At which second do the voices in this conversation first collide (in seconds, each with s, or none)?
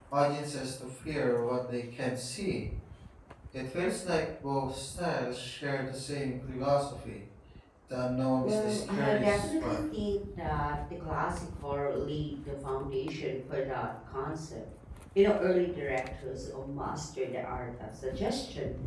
8.4 s